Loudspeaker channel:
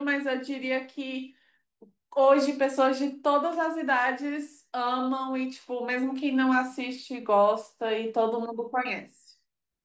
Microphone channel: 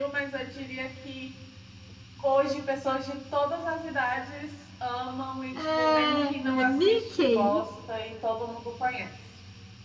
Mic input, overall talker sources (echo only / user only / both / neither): both